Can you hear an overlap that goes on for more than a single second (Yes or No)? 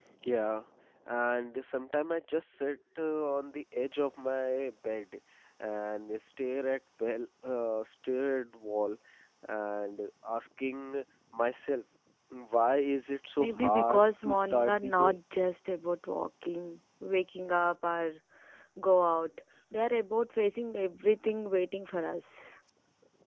Yes